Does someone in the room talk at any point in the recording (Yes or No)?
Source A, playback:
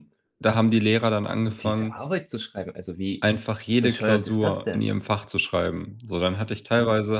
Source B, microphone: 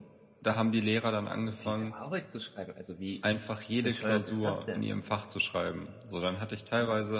No